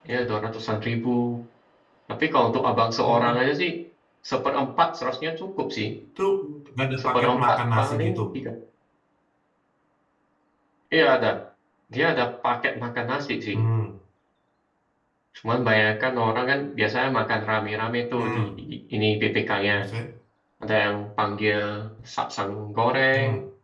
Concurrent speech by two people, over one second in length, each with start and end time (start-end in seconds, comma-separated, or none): 7.0-8.2